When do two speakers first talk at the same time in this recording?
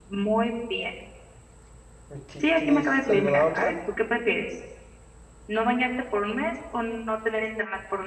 2.4 s

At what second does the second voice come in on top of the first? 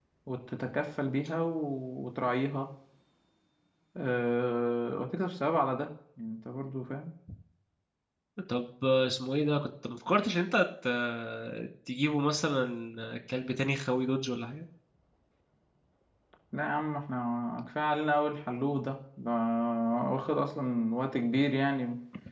none

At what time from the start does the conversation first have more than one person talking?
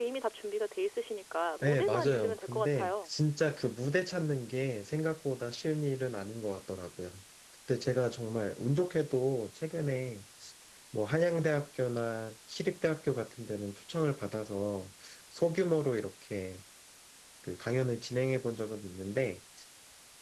1.6 s

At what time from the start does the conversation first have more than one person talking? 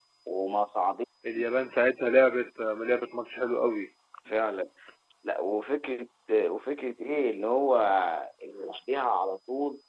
none

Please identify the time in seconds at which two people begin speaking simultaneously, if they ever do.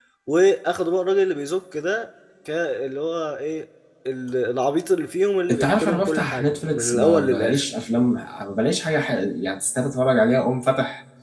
5.5 s

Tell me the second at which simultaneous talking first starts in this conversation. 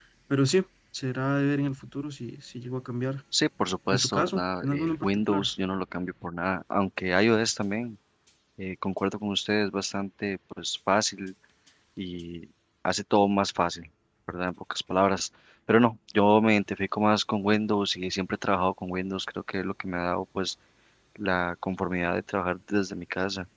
3.9 s

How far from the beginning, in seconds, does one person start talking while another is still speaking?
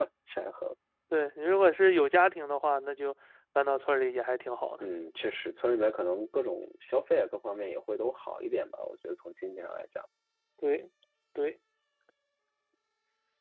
none

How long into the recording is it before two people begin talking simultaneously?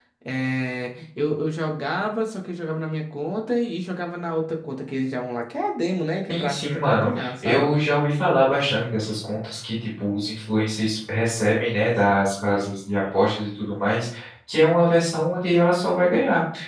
6.3 s

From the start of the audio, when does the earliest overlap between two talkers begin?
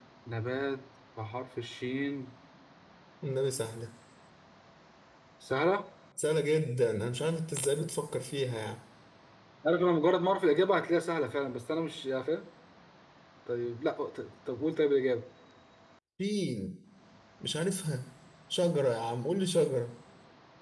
none

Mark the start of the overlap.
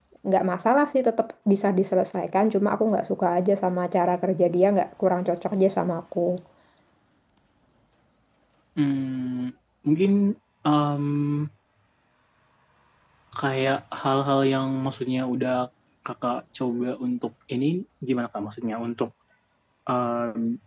none

